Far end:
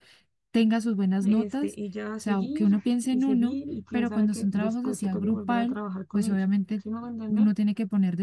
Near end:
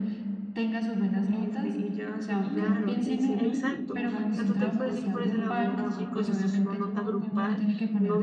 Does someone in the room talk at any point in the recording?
Yes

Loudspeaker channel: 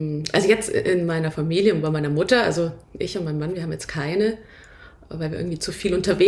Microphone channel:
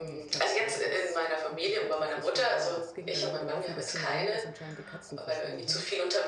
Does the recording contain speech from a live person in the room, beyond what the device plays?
Yes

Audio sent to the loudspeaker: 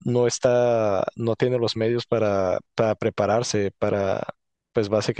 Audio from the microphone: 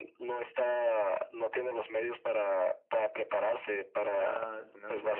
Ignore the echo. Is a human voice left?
Yes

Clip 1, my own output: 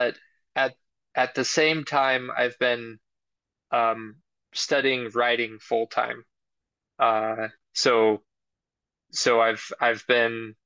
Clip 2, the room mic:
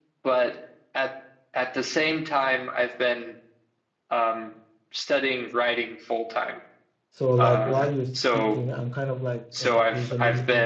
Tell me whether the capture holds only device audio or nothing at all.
No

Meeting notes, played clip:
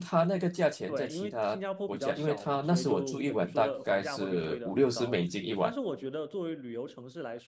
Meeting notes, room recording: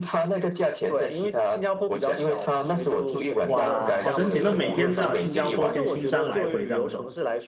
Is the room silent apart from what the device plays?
No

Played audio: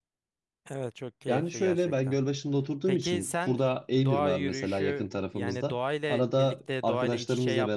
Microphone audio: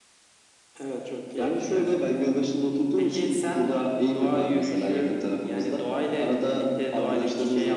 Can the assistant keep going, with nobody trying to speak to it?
Yes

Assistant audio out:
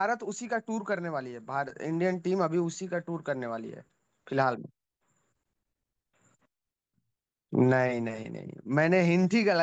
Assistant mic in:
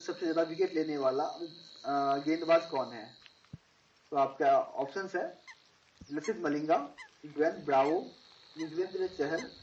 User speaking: Yes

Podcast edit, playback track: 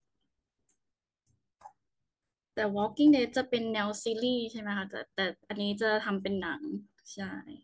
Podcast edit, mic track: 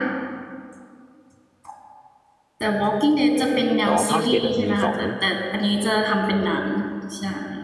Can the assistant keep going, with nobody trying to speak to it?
No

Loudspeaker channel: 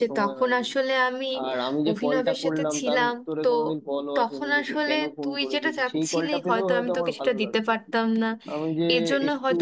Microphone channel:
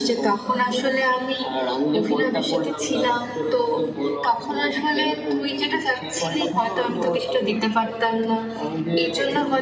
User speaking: No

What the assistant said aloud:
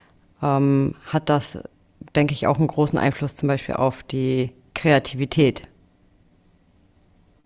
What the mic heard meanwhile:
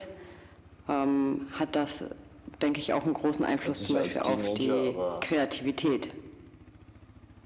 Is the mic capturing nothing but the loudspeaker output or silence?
No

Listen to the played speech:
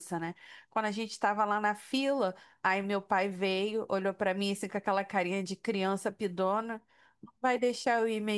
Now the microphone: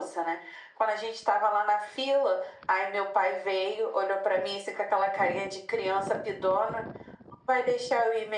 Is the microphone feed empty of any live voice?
Yes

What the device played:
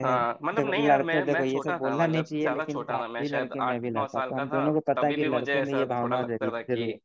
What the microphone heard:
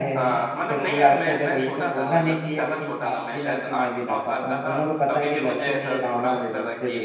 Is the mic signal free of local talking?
Yes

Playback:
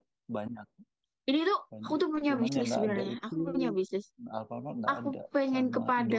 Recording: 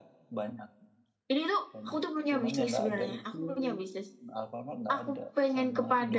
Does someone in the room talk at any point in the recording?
No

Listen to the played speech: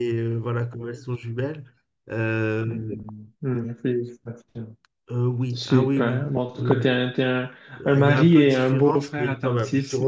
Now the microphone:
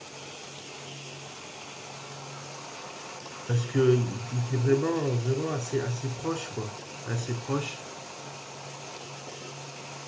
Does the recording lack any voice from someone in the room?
No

